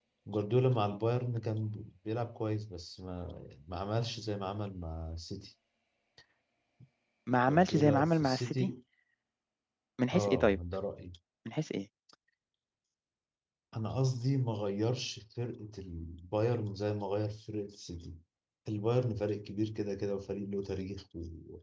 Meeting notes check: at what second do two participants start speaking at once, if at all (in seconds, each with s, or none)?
7.5 s